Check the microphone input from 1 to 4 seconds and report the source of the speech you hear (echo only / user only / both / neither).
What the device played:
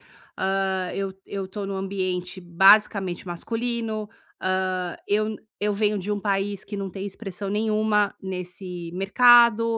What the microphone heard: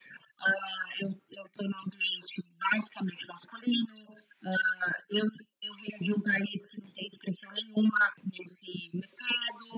echo only